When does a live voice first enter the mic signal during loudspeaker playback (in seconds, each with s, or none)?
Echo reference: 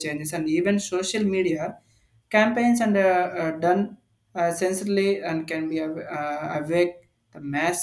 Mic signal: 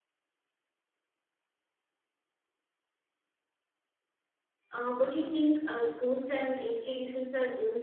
4.7 s